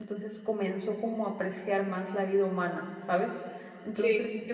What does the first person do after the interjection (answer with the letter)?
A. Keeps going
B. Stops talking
A